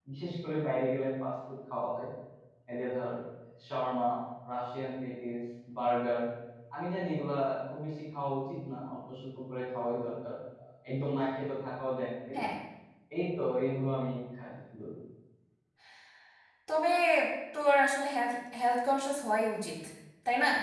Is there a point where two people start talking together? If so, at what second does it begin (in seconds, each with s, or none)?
none